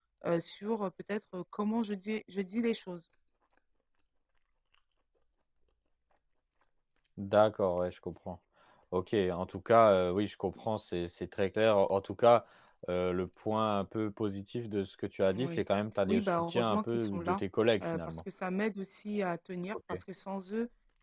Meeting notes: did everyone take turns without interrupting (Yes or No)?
No